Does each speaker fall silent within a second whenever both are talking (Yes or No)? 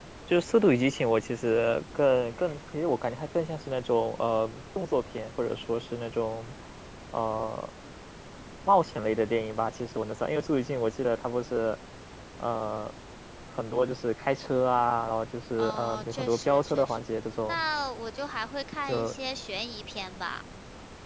No